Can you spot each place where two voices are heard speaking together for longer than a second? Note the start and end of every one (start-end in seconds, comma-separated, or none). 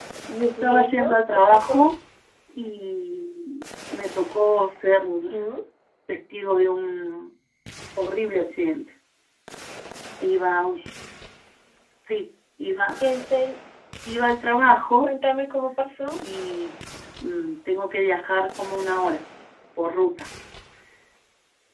0.6-1.9